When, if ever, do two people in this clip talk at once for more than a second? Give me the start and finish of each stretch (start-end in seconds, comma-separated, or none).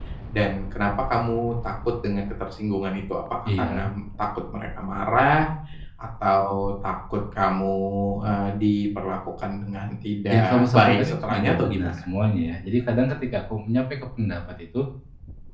10.3-11.9